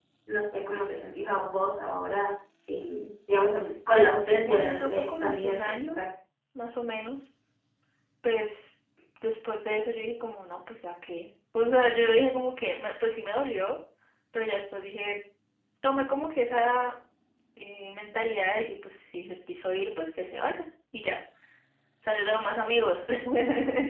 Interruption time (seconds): 4.4 s

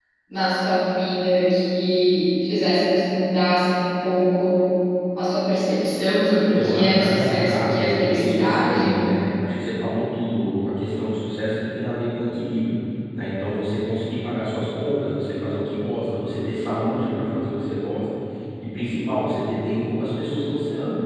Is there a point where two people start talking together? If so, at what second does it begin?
6.3 s

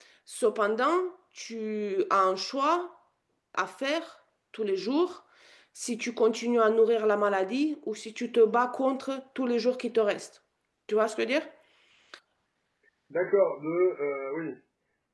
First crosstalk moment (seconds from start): none

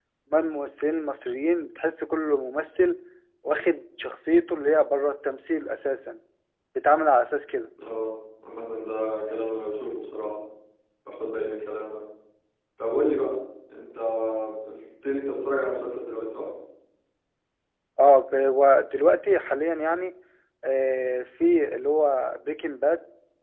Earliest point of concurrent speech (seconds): none

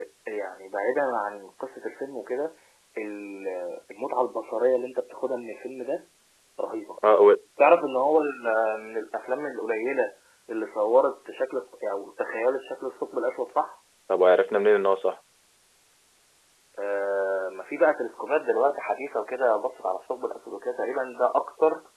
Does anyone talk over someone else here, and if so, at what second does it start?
none

